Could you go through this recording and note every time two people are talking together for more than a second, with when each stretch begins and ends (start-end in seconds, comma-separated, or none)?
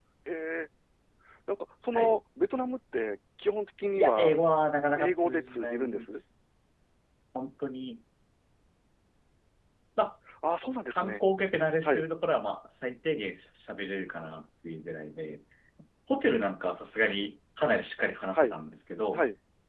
5.0-6.2